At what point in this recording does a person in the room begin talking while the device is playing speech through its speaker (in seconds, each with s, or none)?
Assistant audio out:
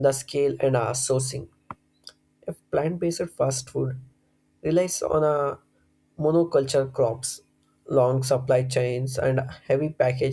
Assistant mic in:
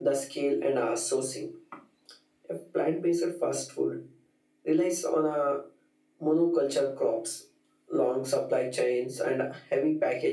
none